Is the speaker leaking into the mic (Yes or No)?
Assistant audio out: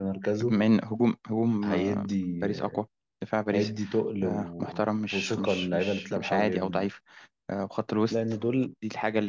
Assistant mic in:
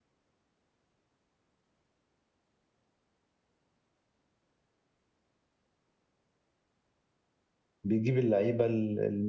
No